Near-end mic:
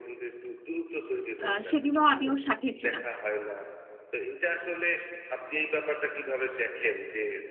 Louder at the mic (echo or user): user